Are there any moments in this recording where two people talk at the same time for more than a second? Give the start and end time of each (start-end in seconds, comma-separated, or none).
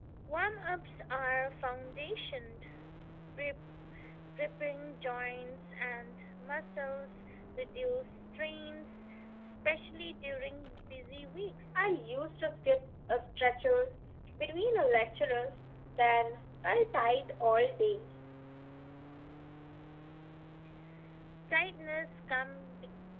none